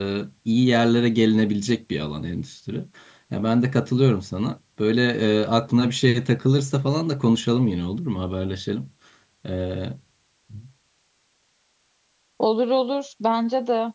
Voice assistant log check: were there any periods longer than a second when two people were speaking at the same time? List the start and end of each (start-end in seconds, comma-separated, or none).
none